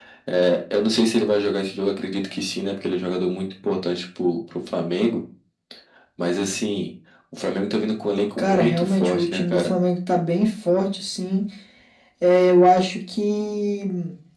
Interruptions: present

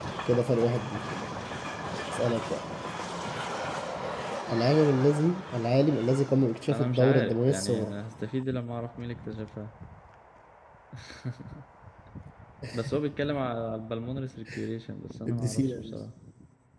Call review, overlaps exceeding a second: present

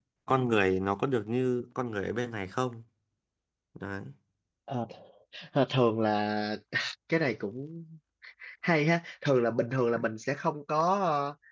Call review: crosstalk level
none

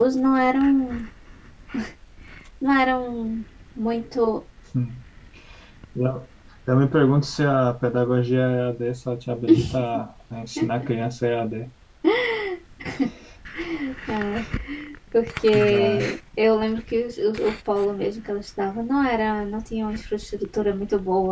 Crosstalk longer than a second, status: none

